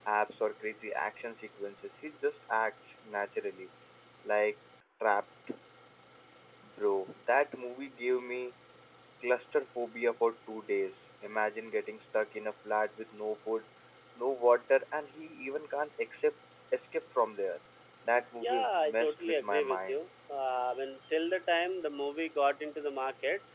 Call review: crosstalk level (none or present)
present